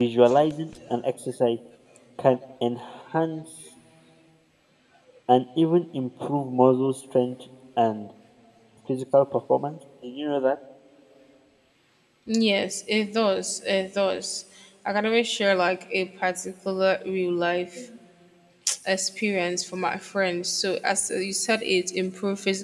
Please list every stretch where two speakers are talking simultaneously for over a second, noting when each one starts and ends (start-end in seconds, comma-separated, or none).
none